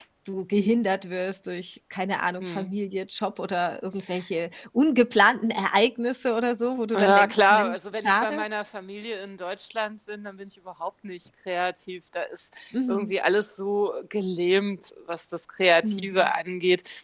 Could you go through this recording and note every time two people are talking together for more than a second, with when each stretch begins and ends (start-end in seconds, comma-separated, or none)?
7.0-8.4